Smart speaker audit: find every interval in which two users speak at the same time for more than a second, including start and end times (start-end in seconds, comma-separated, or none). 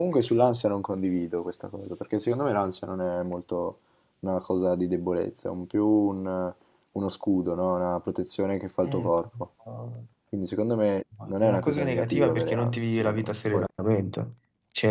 11.3-13.6